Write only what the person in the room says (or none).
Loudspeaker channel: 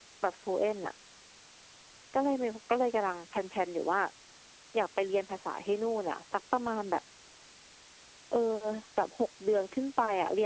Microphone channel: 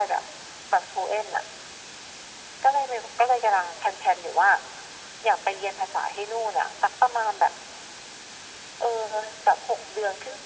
none